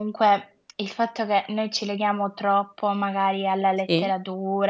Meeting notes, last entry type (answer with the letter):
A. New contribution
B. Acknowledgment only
B